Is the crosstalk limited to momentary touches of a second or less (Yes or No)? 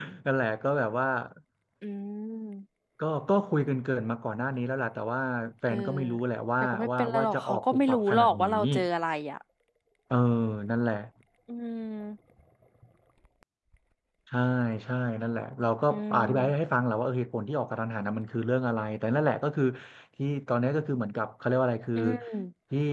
No